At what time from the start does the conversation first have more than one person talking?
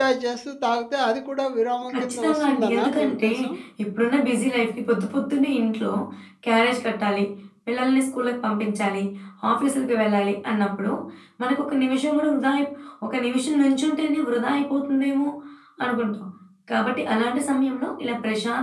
1.9 s

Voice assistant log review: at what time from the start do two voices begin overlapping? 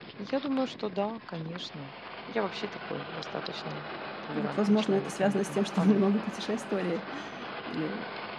4.3 s

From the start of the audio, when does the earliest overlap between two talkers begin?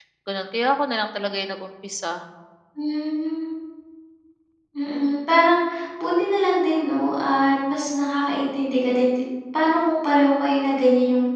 none

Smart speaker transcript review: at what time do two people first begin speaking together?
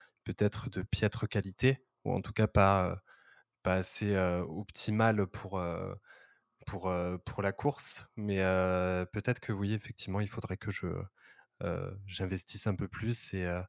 none

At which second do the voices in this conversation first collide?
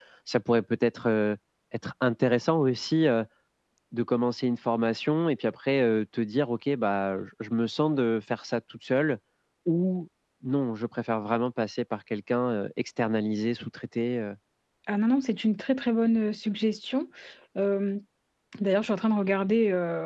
none

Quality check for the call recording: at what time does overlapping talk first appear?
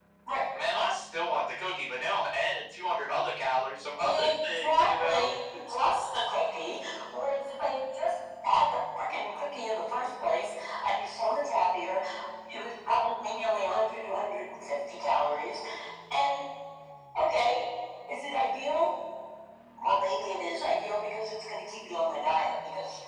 4.0 s

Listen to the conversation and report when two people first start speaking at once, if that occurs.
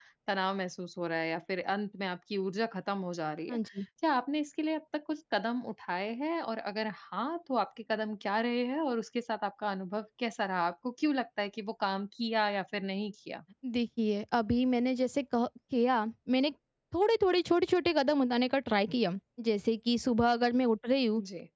none

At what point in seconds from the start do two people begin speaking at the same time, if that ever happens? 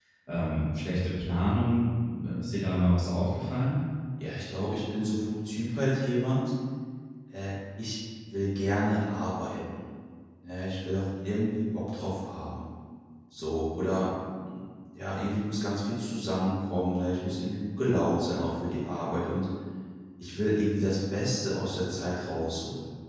none

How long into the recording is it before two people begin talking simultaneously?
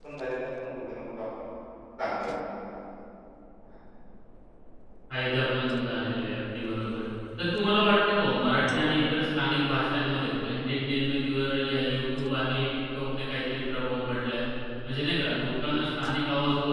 none

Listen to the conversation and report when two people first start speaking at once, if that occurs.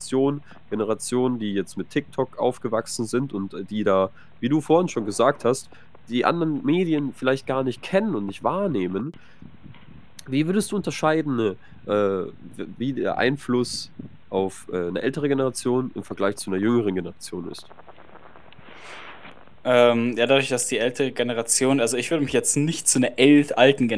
none

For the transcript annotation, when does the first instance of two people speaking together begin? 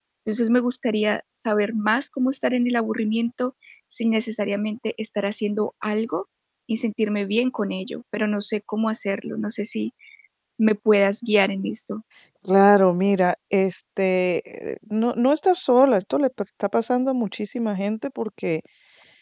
none

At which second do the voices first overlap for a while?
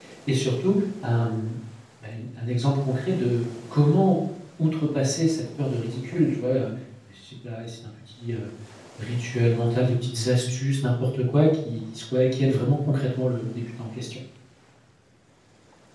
none

